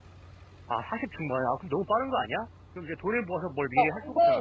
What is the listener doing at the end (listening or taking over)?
taking over